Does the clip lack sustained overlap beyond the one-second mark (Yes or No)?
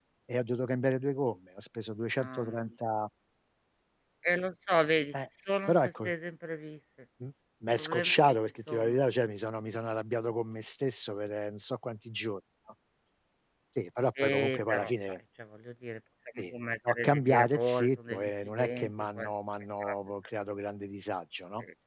No